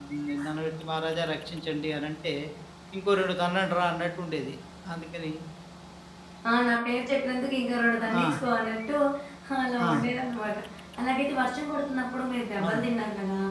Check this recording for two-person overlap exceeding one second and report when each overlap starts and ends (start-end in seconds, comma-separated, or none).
none